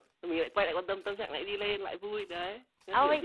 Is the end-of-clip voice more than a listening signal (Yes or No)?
Yes